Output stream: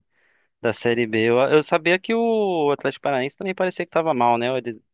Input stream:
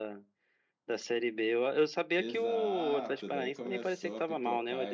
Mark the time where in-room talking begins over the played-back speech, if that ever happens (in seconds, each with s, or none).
2.2 s